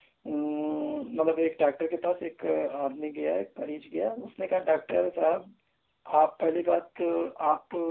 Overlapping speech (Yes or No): No